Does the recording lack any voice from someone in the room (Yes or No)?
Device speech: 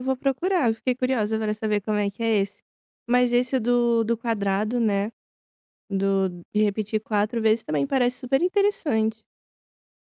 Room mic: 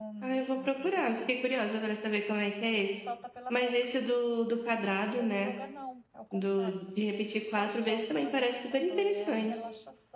No